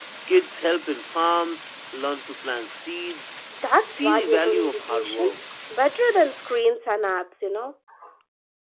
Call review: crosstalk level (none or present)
present